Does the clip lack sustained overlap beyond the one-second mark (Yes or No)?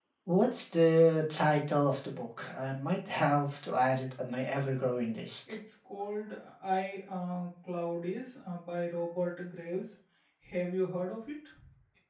Yes